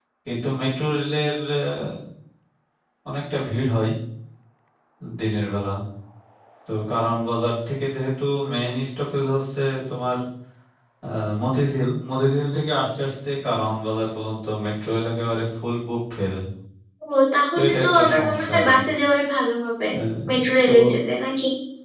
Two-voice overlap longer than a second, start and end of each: 17.5-18.8

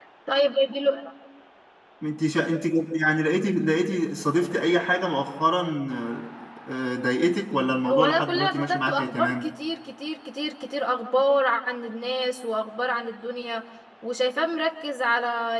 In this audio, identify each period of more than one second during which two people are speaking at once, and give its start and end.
7.9-9.5

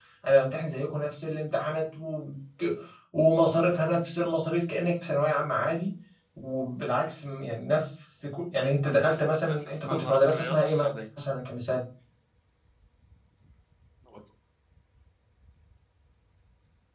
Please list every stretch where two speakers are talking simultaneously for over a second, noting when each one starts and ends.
8.9-10.7

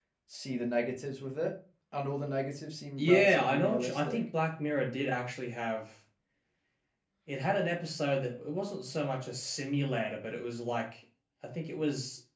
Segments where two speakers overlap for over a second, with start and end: 3.0-4.2

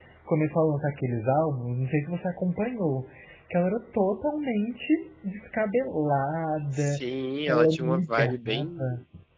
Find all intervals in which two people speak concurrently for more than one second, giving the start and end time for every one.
7.5-8.9

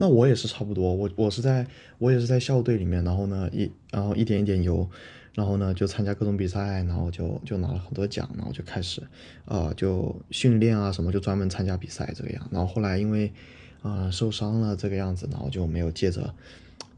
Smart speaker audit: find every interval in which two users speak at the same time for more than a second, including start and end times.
none

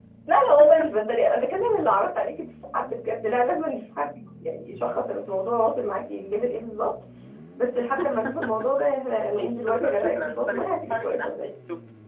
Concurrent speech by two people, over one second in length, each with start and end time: 9.3-11.5

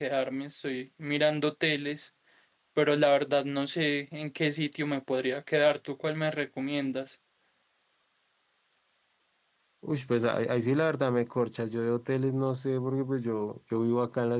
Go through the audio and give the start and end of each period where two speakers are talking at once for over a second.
none

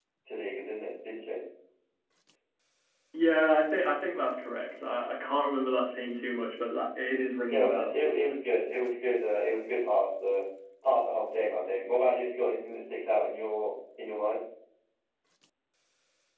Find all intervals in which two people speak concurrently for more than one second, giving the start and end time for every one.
none

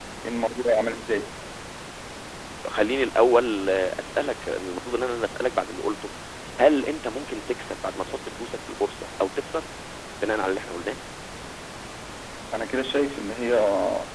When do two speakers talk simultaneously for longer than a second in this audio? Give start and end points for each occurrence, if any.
none

